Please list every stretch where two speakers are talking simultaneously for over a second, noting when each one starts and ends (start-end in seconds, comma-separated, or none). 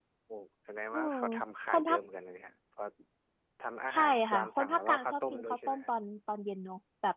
3.9-5.9